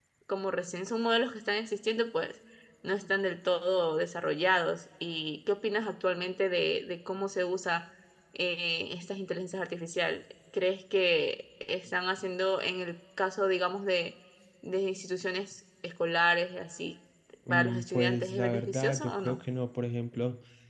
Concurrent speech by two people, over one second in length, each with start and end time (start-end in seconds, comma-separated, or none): 17.5-19.4